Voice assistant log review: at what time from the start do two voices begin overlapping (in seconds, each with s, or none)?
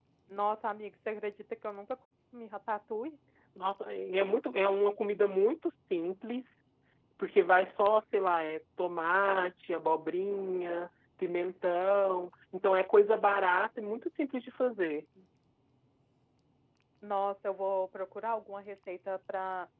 none